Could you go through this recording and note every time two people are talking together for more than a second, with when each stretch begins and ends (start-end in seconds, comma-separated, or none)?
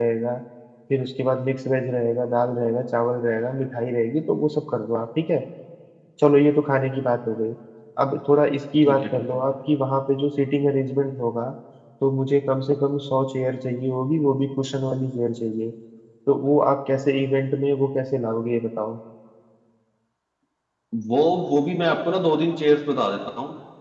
none